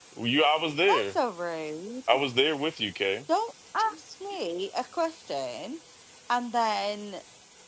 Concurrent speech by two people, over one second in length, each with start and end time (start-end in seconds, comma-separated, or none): none